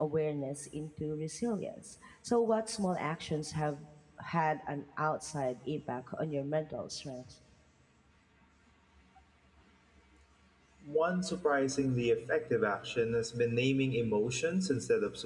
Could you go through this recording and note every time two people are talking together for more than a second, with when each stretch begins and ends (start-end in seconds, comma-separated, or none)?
none